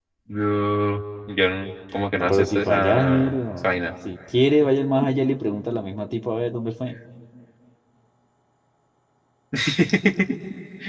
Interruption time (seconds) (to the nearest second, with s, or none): 2 s